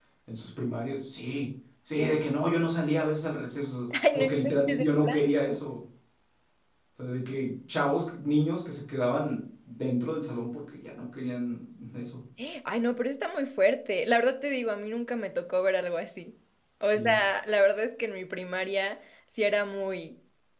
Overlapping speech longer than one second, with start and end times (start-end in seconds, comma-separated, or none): 4.1-5.6